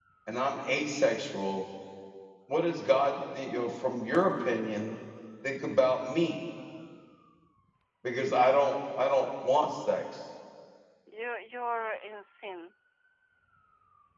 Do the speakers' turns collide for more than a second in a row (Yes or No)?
No